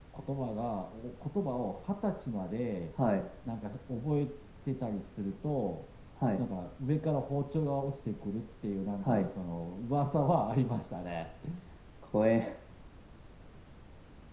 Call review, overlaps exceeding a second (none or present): none